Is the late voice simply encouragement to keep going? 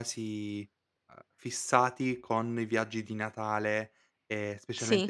Yes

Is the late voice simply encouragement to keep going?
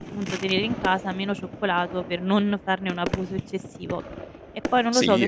No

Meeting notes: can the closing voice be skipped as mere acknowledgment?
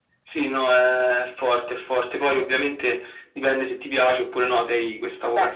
Yes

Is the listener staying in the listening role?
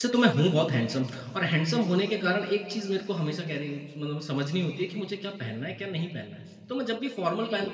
Yes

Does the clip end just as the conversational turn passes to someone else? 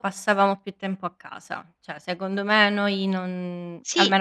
No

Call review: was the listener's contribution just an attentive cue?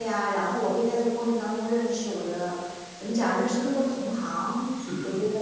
Yes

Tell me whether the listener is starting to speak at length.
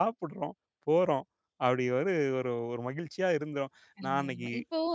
Yes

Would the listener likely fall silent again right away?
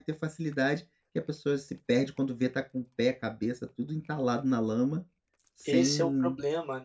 No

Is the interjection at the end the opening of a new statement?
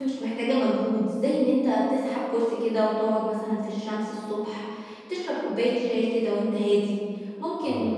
No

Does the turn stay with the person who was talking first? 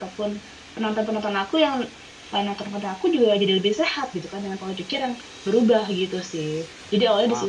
No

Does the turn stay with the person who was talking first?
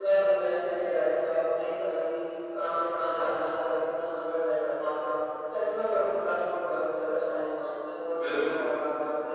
Yes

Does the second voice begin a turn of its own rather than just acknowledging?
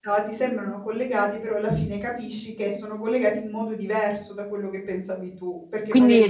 Yes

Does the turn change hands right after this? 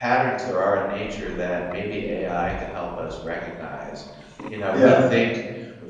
No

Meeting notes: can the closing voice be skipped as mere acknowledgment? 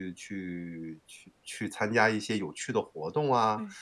Yes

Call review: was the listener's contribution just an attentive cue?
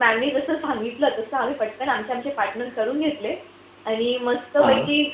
Yes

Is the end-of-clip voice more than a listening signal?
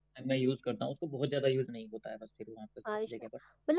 Yes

